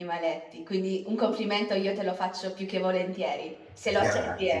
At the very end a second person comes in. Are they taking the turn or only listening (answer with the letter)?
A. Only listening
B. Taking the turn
B